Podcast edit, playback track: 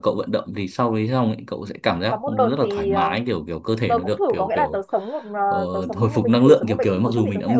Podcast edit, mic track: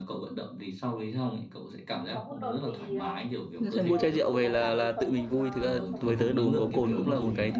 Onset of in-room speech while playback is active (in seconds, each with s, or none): 3.6 s